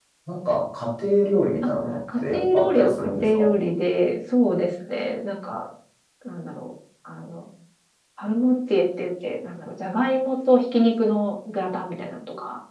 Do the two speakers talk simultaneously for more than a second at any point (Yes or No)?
Yes